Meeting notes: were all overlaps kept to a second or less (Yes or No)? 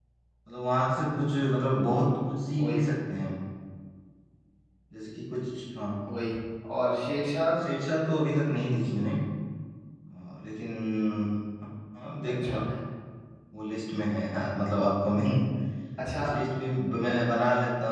Yes